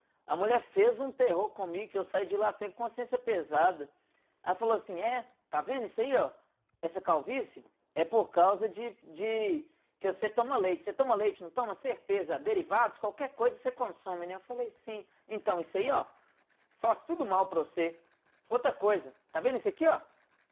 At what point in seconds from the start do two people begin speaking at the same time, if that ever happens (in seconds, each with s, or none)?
none